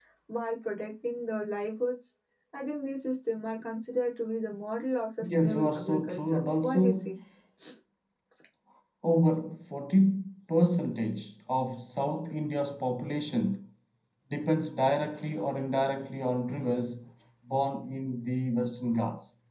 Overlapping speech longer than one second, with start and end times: 5.2-7.1

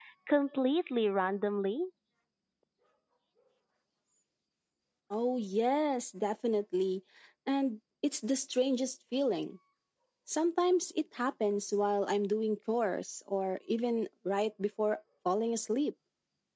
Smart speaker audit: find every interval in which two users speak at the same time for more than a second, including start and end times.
none

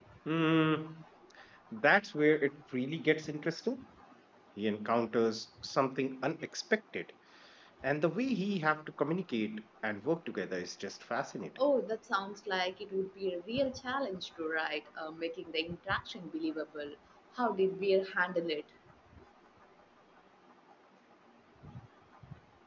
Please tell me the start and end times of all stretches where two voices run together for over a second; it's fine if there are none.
none

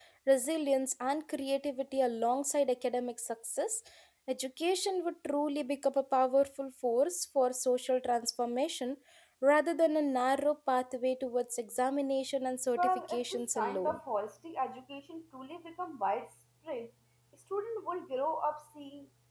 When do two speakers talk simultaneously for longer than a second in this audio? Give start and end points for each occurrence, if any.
12.8-14.0

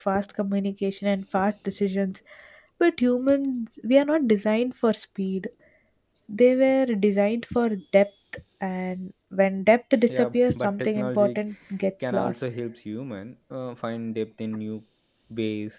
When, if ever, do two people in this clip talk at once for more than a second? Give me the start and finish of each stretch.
10.1-11.4

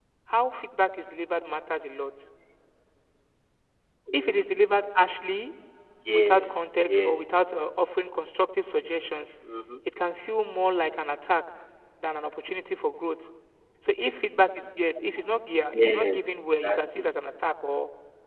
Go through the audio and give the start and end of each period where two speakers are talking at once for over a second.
6.1-7.5

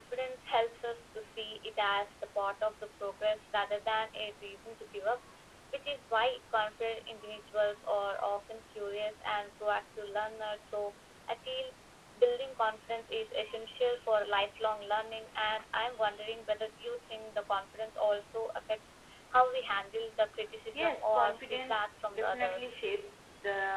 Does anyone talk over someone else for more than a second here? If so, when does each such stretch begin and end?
20.7-22.8

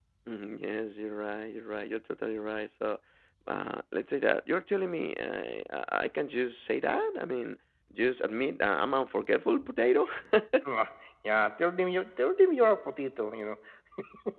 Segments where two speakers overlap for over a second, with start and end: none

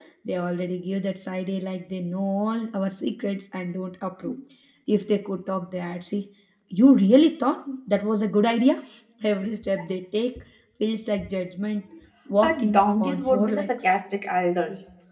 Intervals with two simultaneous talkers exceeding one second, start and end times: 12.4-14.0

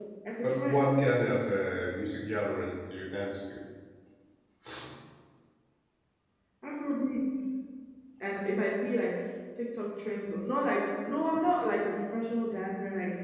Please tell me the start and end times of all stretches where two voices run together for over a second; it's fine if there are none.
none

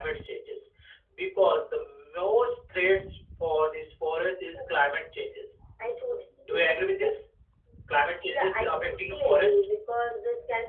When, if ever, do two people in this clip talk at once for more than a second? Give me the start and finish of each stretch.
8.3-9.6

